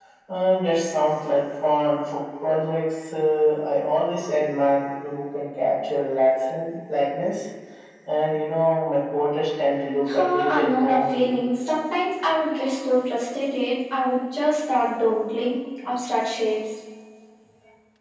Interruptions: present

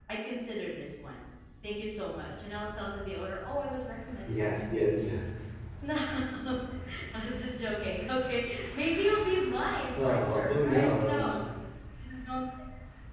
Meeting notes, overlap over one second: present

